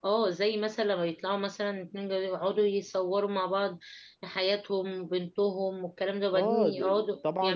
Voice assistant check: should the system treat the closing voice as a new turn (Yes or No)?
Yes